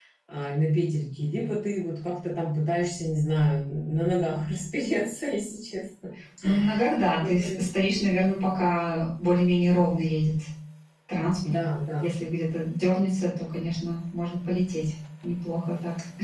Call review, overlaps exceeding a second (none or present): none